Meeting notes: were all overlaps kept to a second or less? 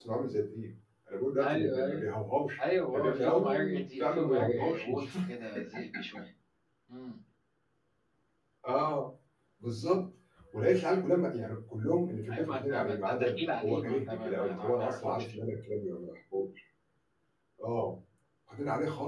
No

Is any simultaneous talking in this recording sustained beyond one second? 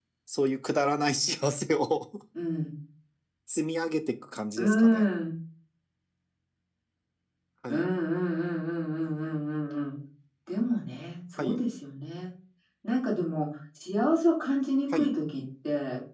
No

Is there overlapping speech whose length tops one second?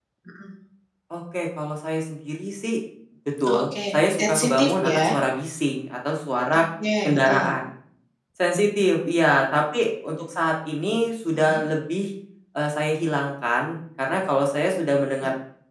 Yes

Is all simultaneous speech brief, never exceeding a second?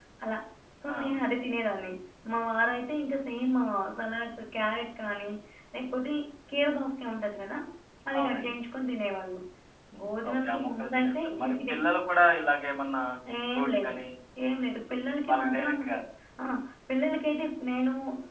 No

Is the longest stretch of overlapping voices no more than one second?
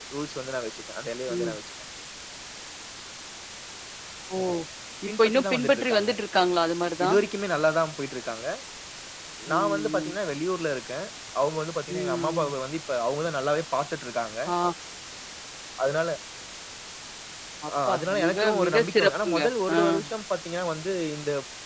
No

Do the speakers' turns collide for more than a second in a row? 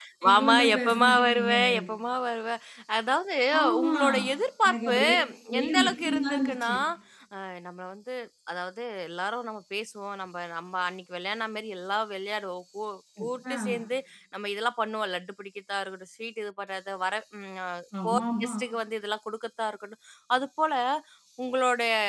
Yes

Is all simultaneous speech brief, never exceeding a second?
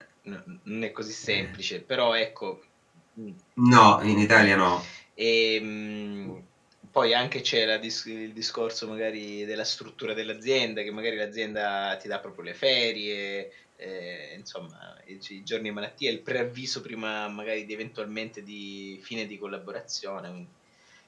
Yes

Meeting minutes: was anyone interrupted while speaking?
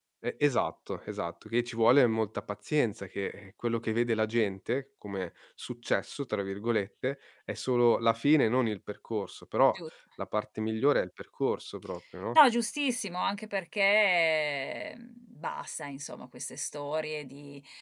No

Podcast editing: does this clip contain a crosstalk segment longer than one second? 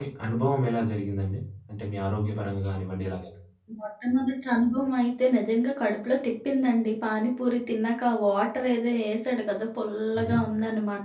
No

